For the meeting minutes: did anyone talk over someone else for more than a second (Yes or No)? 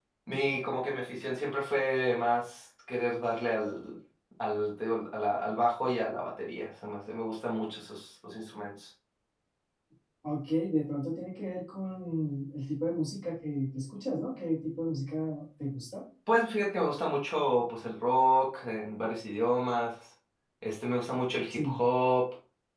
No